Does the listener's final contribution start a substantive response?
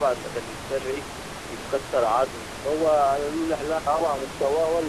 Yes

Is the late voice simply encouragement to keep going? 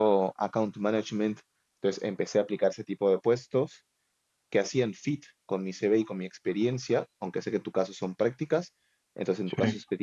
Yes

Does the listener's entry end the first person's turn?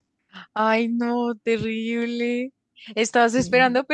No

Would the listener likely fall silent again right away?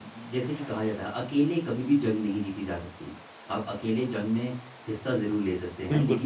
Yes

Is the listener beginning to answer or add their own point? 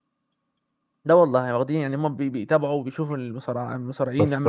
Yes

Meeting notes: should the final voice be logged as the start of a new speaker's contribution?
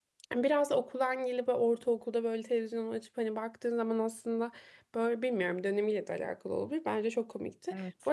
No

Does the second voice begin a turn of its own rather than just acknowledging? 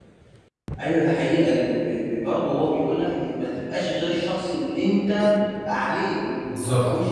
No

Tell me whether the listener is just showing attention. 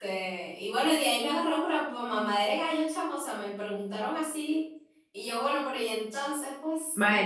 No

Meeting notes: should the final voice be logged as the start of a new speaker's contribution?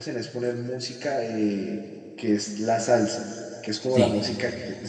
No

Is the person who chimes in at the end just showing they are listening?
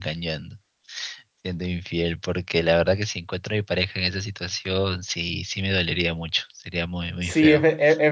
No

